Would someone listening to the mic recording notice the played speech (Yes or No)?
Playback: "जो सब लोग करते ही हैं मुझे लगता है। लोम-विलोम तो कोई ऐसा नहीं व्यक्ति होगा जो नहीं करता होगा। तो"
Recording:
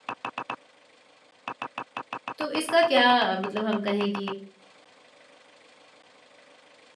No